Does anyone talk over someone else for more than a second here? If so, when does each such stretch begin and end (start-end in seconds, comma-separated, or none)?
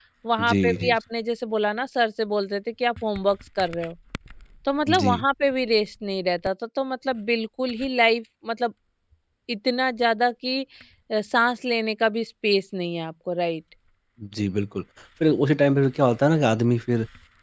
none